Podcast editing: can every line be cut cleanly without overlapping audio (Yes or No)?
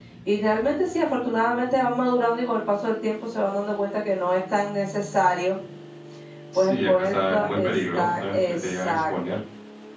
No